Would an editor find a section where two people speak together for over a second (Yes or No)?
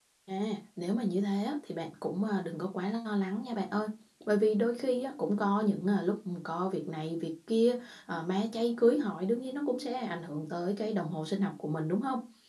No